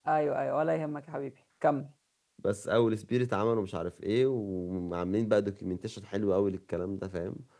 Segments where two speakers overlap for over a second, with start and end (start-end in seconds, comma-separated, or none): none